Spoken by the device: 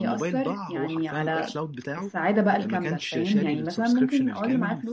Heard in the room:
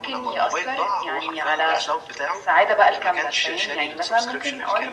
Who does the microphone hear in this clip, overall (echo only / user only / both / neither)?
echo only